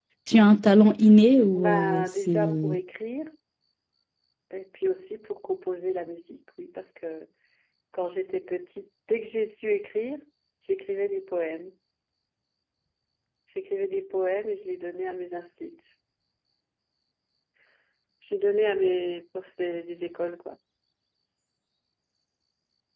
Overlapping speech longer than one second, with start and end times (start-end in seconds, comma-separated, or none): 1.6-2.8